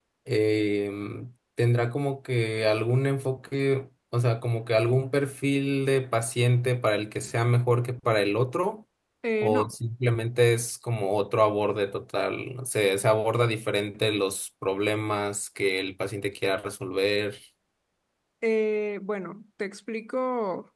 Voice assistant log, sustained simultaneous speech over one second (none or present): none